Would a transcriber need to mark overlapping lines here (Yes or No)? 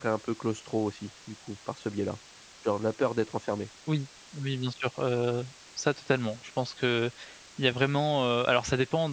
No